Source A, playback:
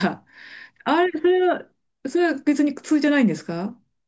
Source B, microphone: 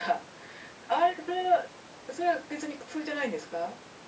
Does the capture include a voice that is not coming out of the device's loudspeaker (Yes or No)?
No